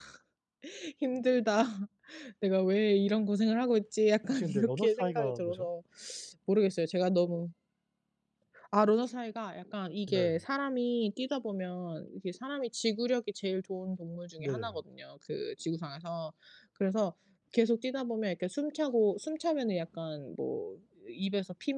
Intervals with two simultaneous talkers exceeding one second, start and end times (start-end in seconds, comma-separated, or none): 4.3-5.7